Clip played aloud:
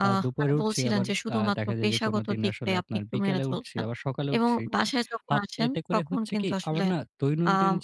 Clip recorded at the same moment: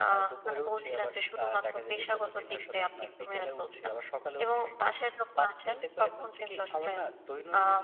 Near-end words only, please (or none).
none